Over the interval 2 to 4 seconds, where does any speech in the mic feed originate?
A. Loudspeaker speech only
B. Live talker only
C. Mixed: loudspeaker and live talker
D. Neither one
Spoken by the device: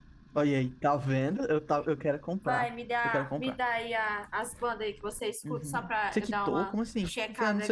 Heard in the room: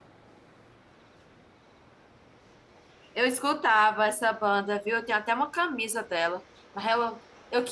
B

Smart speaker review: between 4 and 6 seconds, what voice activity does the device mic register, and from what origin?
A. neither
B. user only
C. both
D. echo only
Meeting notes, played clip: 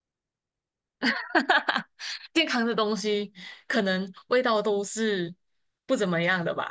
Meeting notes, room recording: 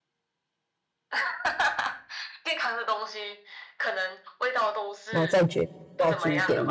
C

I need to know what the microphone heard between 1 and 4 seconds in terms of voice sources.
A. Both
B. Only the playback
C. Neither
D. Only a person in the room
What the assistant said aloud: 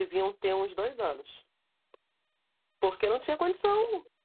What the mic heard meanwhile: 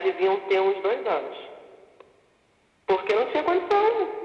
B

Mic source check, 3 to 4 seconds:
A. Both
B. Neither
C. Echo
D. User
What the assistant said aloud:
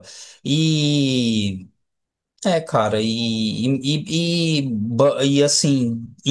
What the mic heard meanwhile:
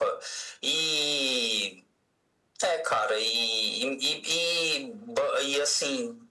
C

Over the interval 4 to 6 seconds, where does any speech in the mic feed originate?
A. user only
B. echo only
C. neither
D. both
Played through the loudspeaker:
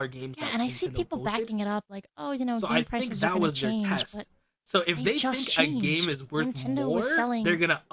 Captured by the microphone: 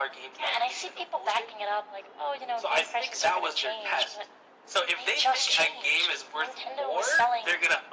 B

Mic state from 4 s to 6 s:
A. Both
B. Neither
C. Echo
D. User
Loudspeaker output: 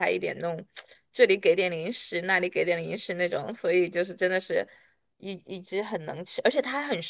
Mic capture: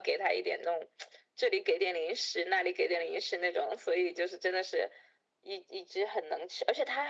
C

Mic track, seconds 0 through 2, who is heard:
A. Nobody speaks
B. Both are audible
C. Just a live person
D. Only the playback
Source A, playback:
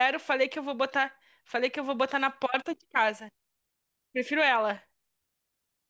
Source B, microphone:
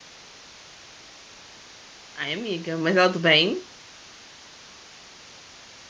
A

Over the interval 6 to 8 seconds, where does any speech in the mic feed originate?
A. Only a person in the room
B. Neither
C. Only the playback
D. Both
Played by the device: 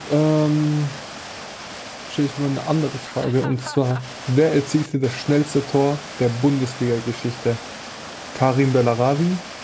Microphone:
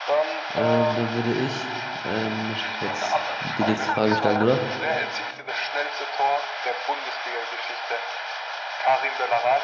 C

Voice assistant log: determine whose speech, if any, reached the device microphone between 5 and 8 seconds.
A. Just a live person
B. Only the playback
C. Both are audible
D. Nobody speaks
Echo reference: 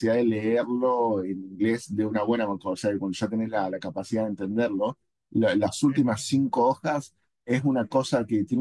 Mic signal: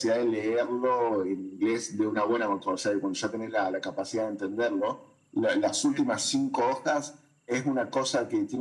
B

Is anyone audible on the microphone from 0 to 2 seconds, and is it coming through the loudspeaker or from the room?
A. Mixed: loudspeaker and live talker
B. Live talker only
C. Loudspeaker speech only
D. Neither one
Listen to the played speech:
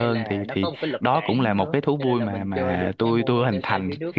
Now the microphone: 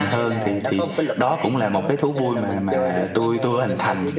C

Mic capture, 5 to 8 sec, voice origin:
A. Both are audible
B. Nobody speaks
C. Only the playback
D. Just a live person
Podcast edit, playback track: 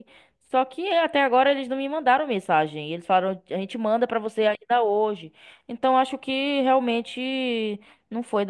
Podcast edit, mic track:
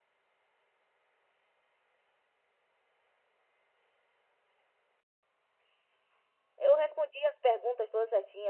D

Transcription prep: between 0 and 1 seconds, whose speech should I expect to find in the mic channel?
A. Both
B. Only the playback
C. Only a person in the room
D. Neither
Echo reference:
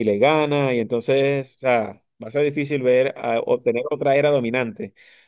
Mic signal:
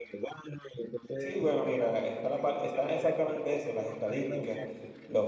B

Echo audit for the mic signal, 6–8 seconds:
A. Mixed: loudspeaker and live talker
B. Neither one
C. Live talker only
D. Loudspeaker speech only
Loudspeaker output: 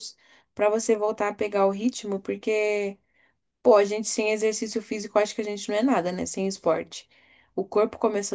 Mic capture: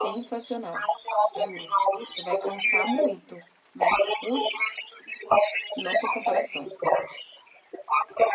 A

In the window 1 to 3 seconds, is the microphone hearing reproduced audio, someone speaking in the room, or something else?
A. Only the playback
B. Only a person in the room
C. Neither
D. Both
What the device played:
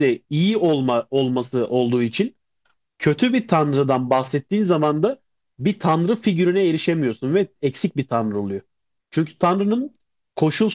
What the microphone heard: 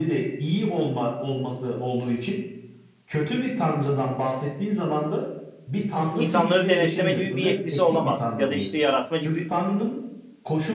A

